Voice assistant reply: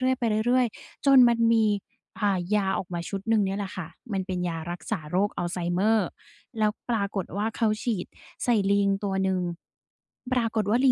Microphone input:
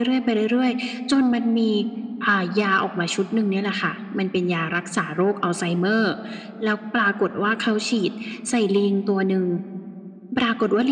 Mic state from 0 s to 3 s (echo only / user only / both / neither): echo only